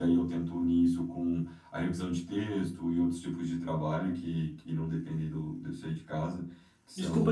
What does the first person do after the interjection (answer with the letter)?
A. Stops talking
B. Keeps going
A